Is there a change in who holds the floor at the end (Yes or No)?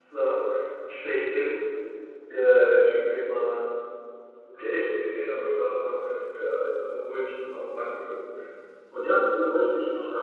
No